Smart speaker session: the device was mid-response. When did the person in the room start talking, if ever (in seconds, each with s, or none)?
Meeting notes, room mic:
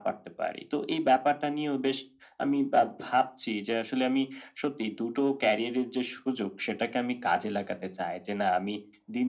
none